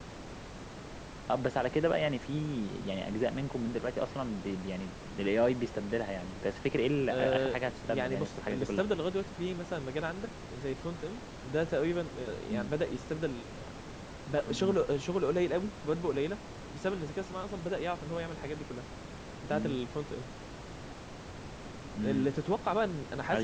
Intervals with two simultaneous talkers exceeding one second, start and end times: 7.1-8.8

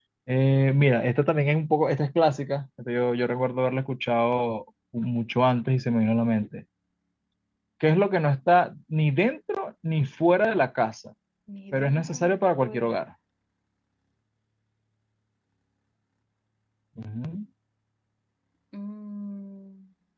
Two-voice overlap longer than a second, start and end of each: 11.7-13.0

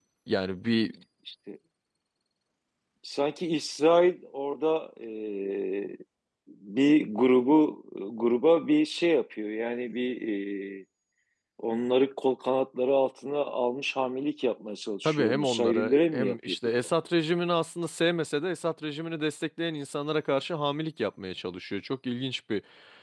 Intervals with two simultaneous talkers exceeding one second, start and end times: 15.0-16.9

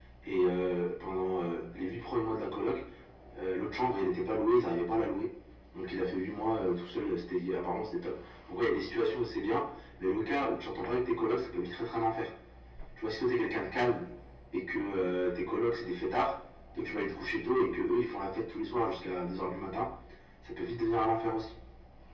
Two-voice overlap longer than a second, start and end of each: none

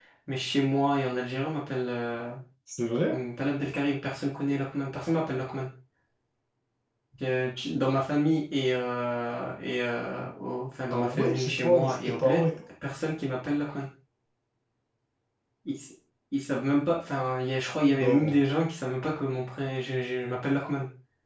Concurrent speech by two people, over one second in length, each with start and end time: 10.9-12.4

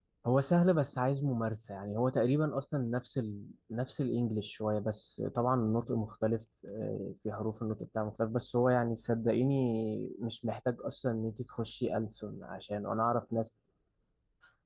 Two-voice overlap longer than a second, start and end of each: none

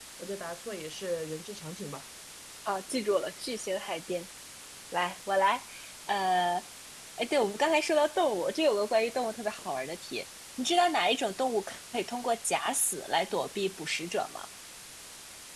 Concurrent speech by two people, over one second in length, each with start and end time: none

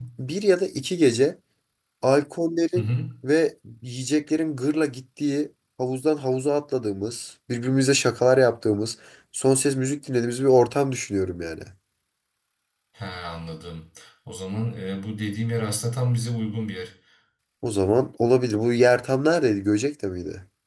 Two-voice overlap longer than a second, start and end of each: none

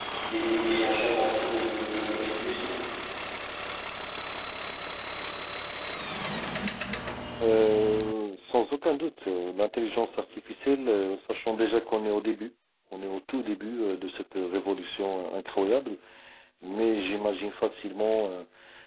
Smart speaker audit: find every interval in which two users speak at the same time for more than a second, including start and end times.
none

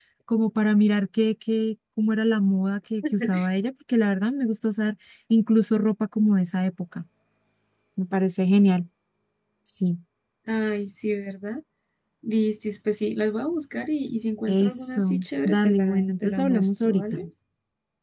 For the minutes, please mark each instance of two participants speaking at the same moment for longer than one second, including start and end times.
14.5-17.0

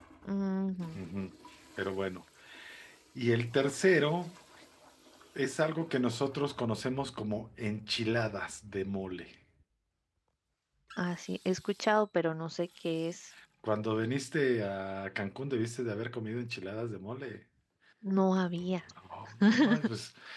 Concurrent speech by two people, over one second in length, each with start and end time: none

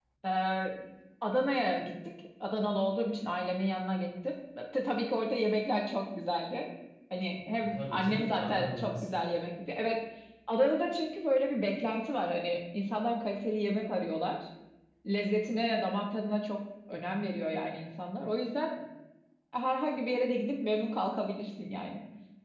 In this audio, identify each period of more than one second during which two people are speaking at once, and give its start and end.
7.6-9.1

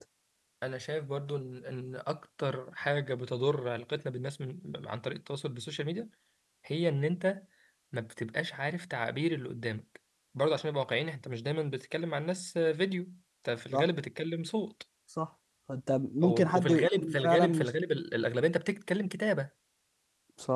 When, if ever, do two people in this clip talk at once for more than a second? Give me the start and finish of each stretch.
16.2-17.7

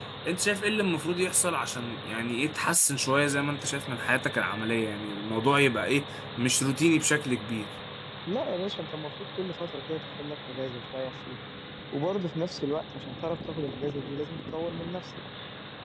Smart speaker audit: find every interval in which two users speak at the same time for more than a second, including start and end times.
none

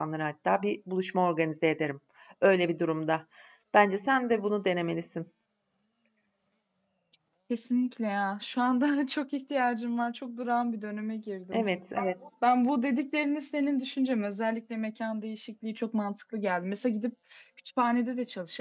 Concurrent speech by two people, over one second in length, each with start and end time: none

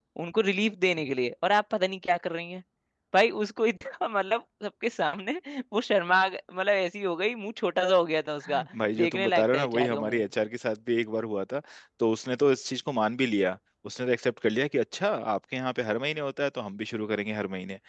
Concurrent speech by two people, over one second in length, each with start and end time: 9.0-10.2

